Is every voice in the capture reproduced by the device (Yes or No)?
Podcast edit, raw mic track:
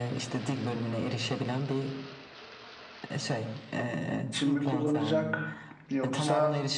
No